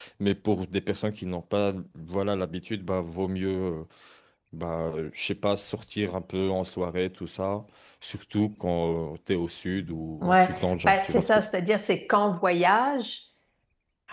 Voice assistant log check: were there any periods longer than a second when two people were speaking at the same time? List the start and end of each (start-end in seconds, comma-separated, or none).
none